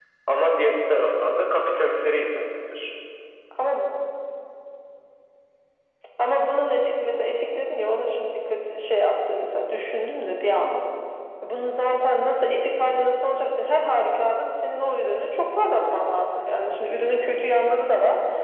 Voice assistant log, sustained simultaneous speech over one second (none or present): none